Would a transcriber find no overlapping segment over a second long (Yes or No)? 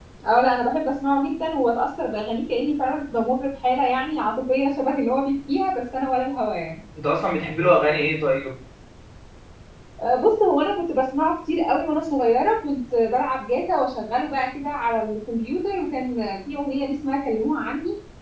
Yes